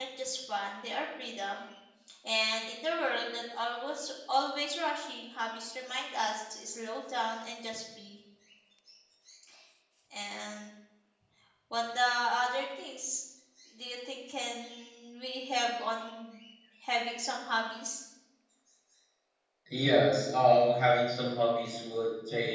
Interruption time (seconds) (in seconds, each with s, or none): none